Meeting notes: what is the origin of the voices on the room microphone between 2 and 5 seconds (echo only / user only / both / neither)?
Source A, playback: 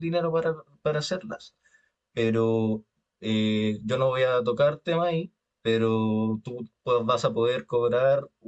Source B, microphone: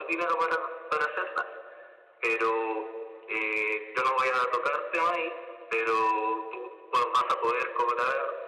echo only